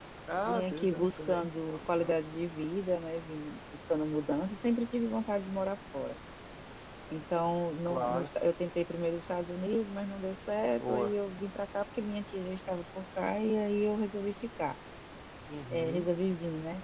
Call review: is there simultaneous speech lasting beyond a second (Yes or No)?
Yes